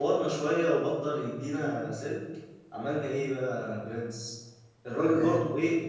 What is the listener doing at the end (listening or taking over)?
listening